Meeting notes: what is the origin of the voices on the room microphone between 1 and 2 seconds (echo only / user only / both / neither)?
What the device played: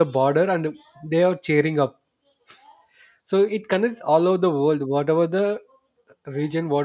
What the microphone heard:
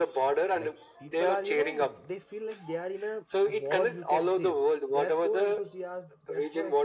both